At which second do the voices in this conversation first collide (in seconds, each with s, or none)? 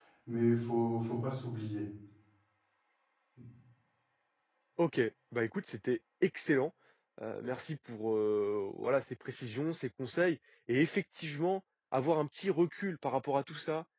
none